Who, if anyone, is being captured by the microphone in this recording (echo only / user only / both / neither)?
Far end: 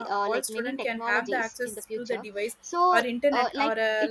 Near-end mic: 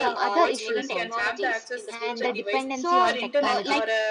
both